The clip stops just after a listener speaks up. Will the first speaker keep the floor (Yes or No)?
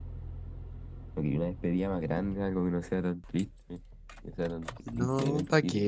No